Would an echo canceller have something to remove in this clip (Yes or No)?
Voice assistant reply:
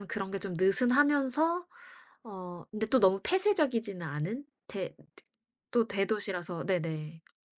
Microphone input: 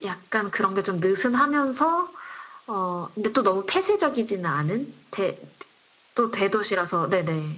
Yes